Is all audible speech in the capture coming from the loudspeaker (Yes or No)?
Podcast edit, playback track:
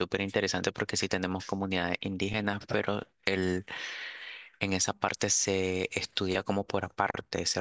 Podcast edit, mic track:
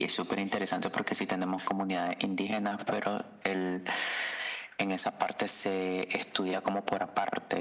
Yes